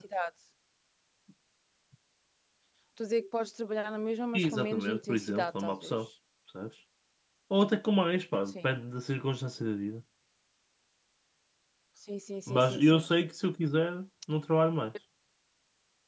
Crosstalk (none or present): present